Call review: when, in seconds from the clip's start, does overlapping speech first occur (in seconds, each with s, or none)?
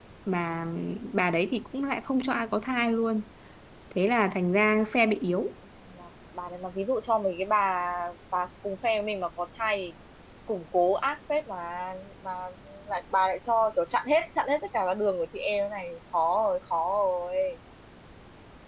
none